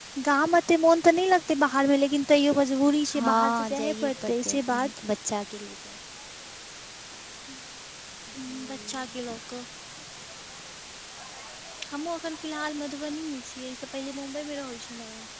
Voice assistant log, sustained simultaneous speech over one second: present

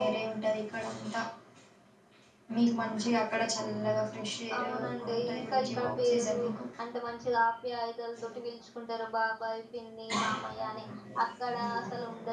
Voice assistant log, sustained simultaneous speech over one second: present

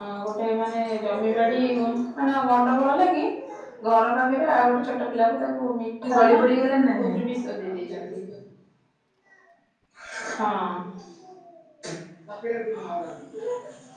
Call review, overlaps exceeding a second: none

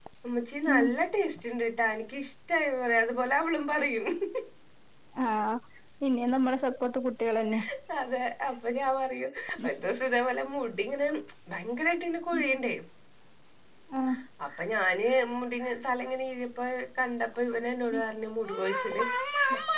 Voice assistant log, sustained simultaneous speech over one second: none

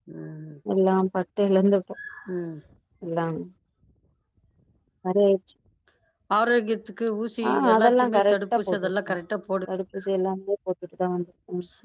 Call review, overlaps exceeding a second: present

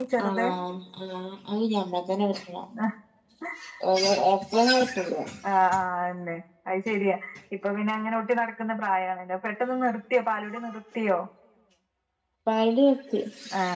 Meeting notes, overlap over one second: none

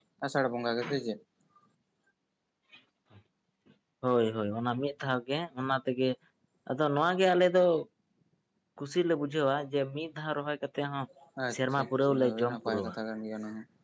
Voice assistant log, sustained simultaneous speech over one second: present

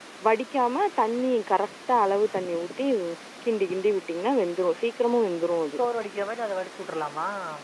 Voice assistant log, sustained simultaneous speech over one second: none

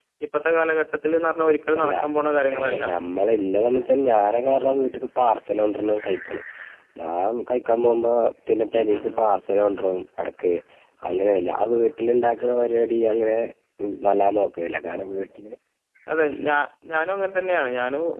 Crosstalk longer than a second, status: none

